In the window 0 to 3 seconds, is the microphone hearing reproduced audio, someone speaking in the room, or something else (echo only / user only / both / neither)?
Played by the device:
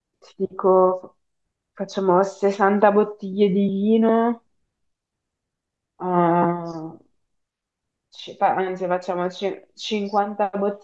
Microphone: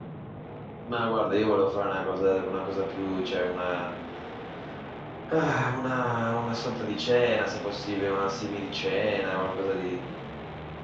user only